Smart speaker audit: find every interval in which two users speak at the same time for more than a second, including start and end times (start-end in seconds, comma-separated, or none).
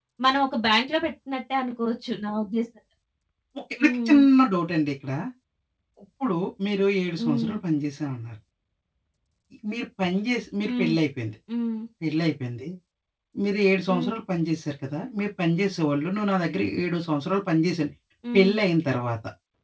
none